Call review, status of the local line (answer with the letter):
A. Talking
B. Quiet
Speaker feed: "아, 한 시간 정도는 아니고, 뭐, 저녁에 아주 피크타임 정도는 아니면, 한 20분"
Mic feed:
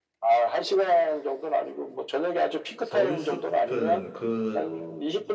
A